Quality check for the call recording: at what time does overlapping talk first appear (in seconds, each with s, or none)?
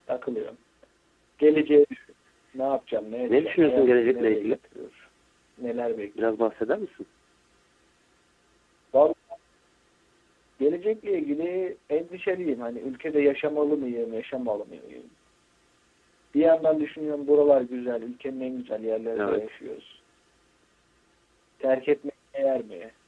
3.3 s